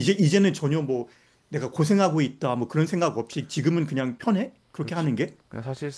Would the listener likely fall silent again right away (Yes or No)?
No